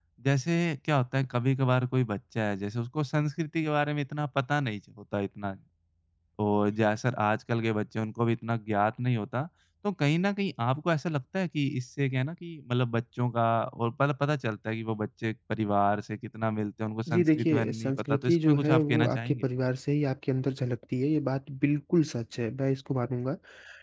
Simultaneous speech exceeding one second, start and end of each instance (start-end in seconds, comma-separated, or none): 17.1-19.5